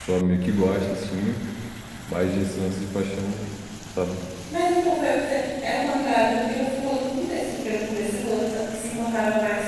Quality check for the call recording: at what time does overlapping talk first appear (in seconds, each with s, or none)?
none